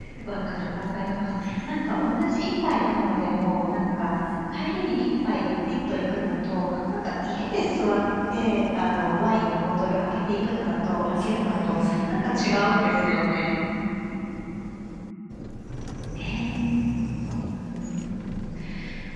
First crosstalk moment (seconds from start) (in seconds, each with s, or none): 11.1 s